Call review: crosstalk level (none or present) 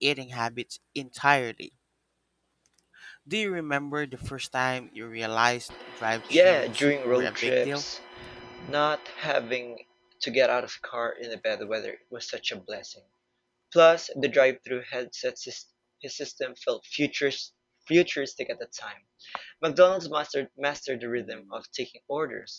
present